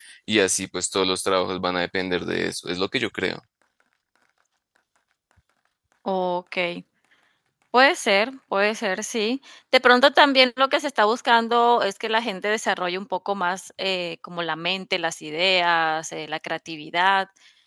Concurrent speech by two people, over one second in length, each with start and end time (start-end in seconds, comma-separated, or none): none